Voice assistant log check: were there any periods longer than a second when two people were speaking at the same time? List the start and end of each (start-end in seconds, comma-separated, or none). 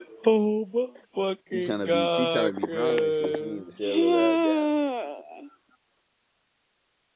1.5-4.7